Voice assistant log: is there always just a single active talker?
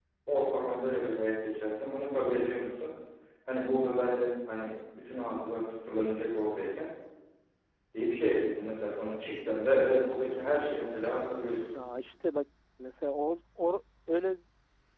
Yes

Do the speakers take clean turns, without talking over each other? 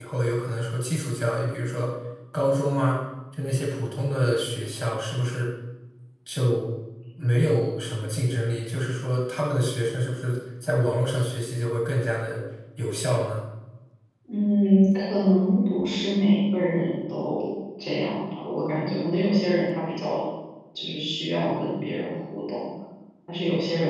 Yes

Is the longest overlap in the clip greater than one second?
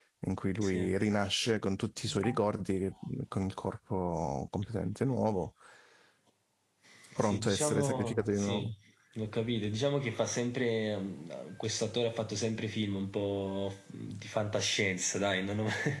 Yes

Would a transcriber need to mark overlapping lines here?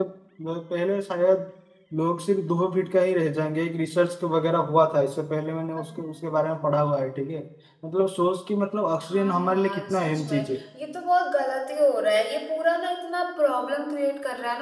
Yes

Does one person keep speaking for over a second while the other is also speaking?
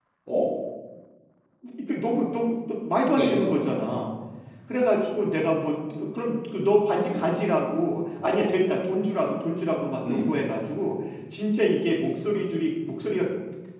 No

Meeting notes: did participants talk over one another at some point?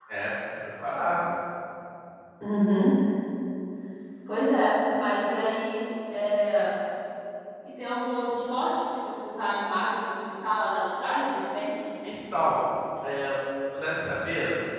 No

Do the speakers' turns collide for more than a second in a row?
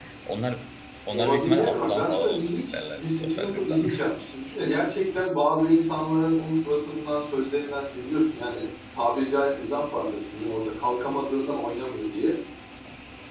Yes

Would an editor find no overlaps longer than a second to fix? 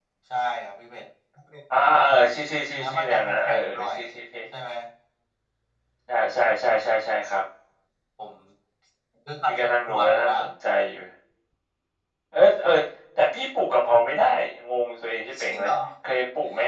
No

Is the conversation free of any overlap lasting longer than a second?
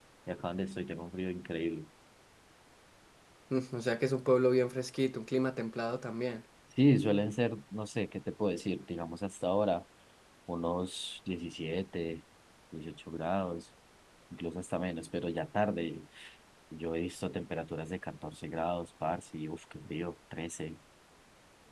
Yes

